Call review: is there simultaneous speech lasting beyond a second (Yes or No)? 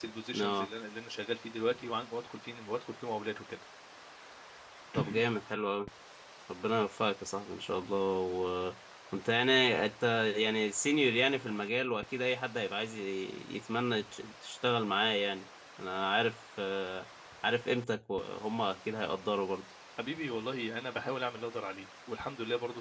No